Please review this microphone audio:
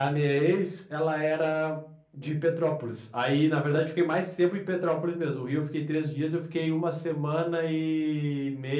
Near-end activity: present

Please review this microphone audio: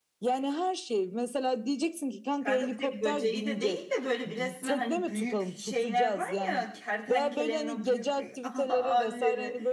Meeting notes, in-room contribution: present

